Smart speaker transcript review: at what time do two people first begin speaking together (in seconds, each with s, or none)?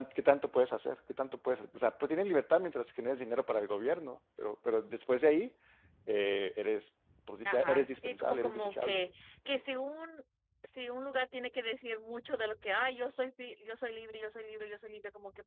7.5 s